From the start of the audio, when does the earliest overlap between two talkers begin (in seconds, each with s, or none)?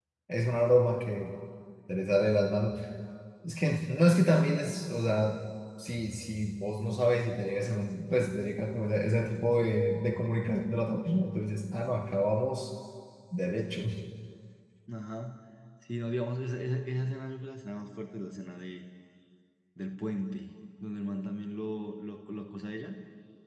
none